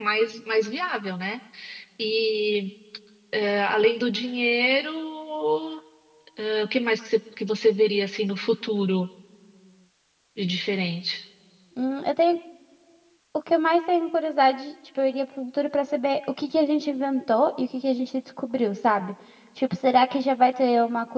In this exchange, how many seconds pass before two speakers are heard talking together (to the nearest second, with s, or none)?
none